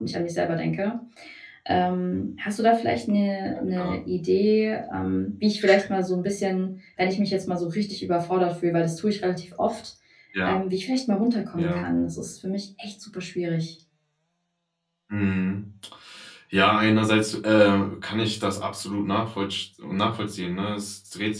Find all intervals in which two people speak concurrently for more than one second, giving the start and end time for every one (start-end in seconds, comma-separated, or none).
none